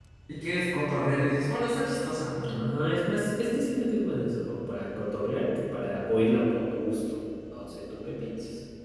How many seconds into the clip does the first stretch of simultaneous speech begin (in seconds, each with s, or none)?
none